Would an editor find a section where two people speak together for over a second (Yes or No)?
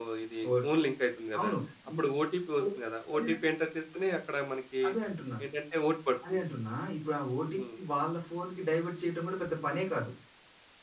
No